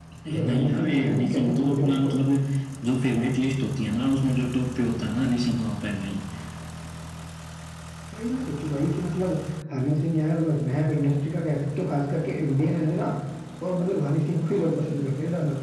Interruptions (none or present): present